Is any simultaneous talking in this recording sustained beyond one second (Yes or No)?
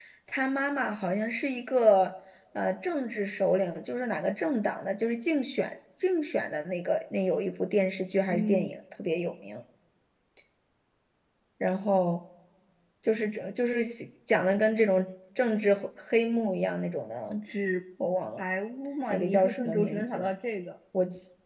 Yes